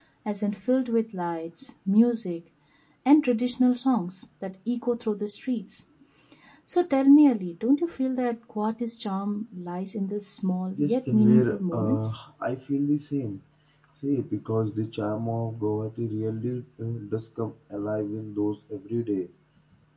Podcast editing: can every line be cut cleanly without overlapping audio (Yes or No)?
No